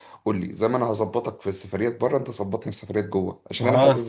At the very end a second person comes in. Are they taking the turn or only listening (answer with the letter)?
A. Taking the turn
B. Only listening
B